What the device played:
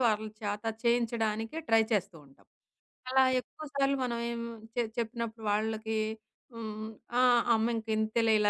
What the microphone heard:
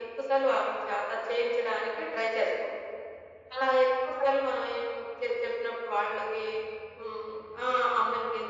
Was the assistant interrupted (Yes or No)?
No